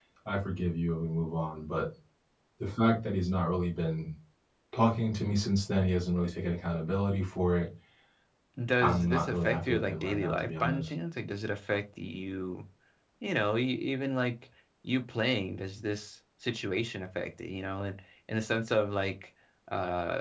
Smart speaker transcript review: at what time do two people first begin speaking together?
8.8 s

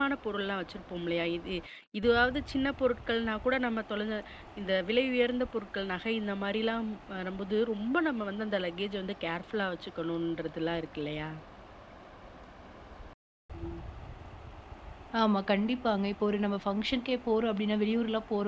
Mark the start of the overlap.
none

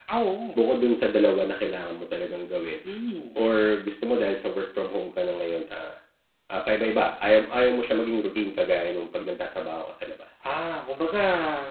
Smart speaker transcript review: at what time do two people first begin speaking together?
none

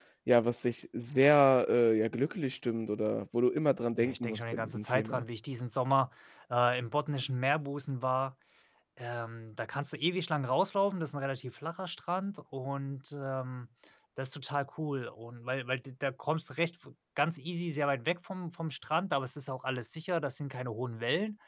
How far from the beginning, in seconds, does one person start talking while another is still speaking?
4.0 s

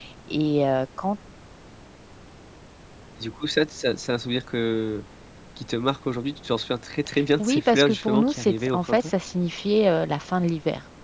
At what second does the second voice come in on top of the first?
7.4 s

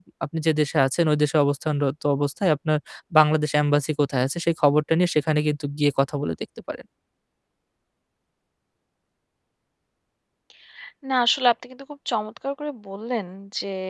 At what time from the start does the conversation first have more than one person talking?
none

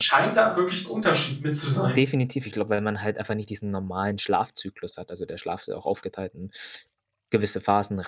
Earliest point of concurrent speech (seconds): none

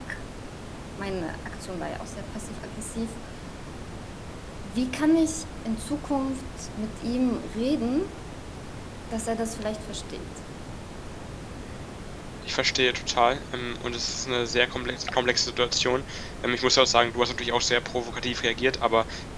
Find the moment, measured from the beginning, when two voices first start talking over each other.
none

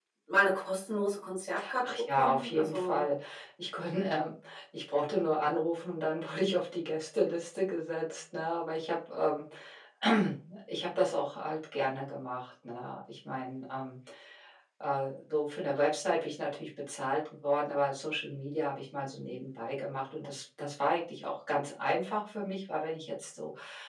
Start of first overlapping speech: 1.8 s

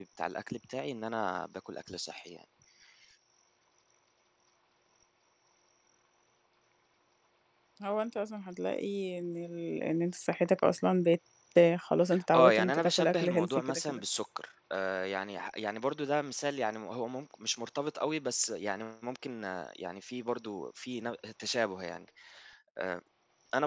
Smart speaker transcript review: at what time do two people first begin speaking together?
12.3 s

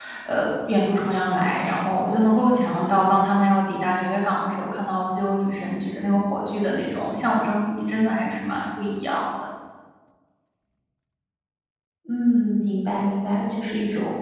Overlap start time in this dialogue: none

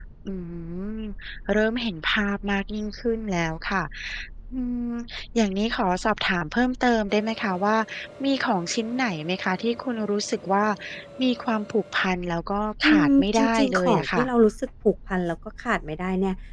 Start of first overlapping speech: 12.8 s

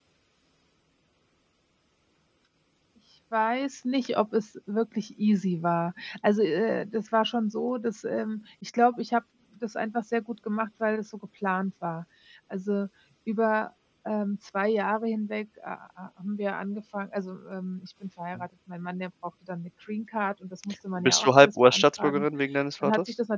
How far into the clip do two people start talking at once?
21.0 s

